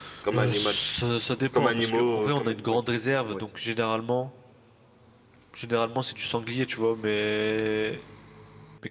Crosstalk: present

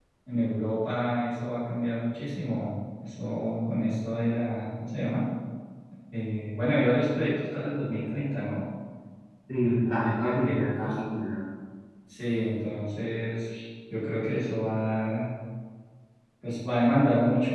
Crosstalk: present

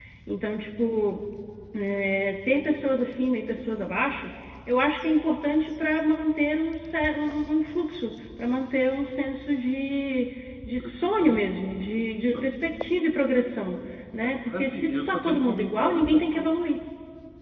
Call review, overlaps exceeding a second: present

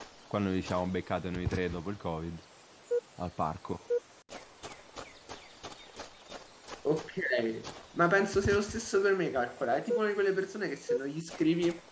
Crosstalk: none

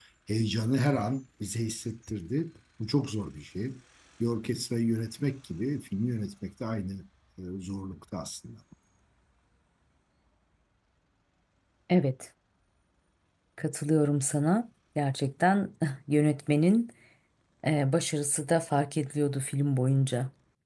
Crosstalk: none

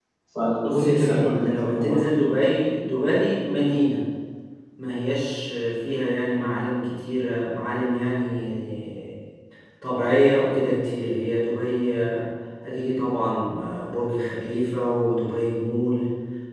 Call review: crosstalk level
present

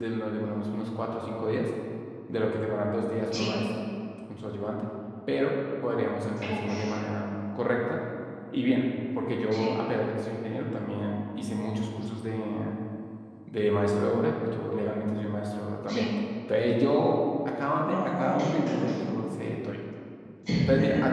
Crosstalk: present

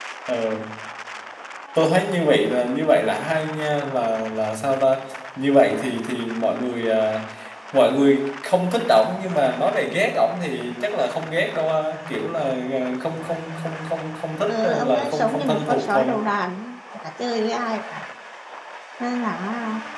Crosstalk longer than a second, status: present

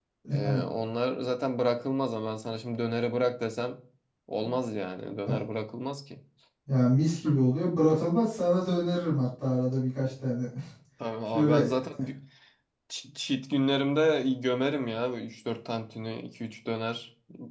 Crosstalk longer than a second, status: none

